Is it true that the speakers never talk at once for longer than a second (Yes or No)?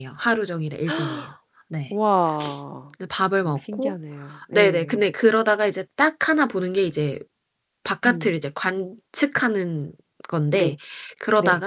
Yes